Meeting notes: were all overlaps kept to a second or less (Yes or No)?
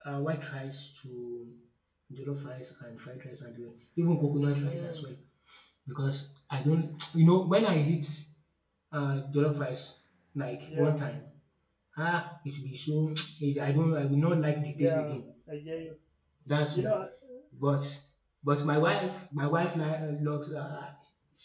Yes